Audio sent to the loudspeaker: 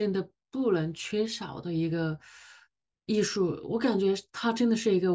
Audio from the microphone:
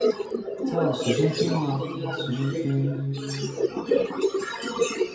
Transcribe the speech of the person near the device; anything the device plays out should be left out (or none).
叫随身听啊，随身听，